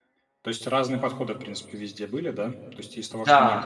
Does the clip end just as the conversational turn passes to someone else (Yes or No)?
No